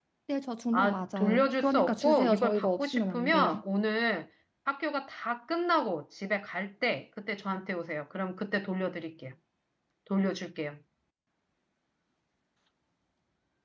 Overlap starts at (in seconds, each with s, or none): 0.7 s